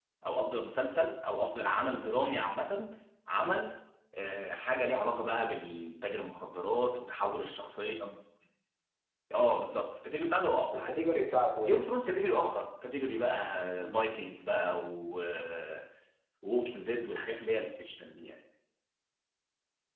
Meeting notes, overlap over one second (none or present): none